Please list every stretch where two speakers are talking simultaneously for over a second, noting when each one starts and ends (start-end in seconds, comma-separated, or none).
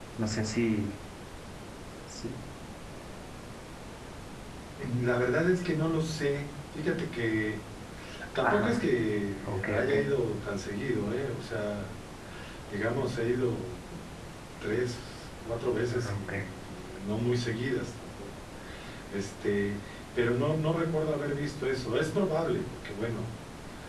none